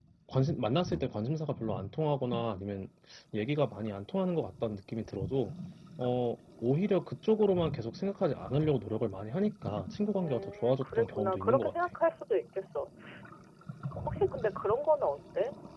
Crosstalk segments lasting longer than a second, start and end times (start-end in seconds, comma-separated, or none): 10.2-11.7